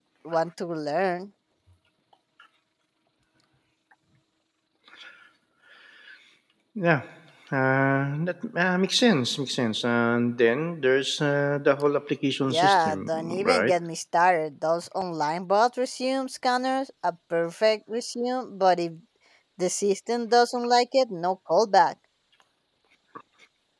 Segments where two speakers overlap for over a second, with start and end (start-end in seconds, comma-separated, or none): 12.5-13.7